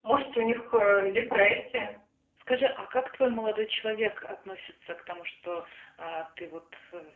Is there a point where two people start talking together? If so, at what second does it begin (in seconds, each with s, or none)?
none